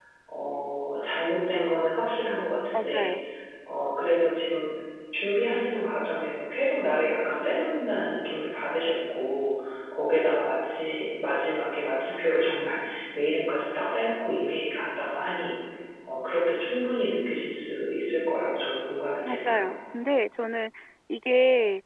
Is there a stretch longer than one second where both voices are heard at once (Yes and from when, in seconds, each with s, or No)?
No